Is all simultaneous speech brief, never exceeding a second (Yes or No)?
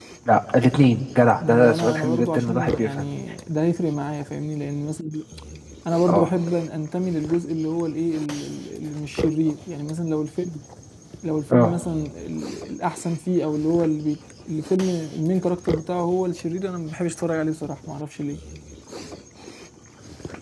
No